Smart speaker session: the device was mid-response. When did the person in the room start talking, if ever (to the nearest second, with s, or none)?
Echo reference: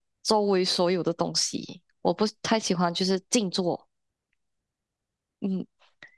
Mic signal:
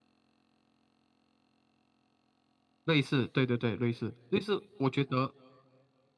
3 s